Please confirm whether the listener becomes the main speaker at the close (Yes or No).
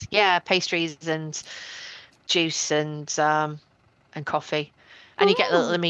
No